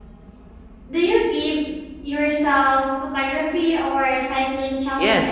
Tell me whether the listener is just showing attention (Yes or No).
No